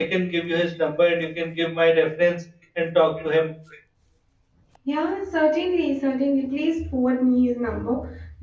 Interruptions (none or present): none